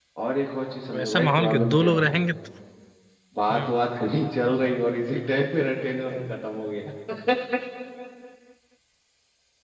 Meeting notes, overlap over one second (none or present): present